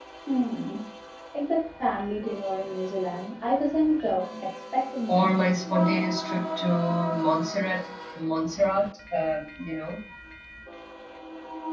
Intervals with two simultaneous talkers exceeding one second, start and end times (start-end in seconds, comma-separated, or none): none